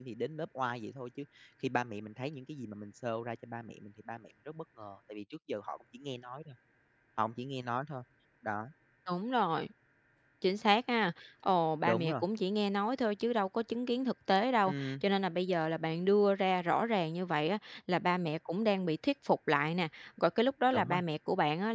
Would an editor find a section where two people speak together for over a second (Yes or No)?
No